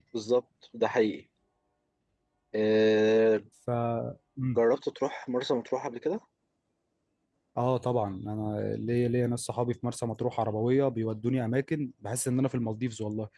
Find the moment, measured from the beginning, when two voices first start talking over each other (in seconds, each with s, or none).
none